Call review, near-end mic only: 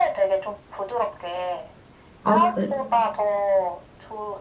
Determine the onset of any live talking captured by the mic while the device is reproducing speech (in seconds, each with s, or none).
2.2 s